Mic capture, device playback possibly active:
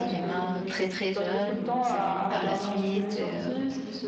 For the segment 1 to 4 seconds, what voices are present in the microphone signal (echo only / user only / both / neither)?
both